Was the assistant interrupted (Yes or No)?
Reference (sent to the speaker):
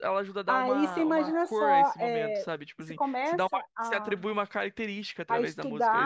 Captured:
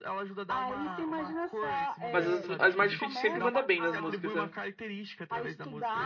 Yes